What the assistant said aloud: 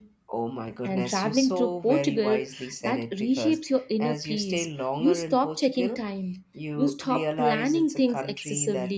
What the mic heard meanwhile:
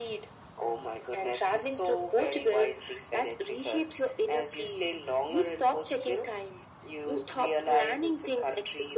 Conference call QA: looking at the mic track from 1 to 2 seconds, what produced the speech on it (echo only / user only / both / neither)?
echo only